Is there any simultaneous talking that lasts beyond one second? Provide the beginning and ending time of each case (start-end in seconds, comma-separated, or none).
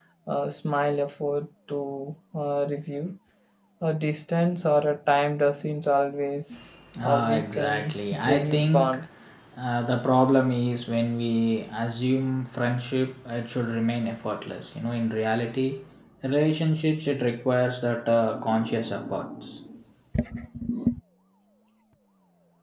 7.0-9.0